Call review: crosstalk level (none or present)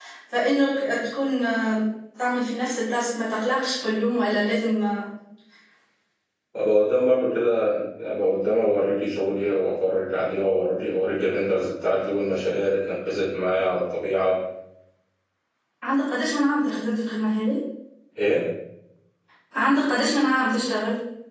none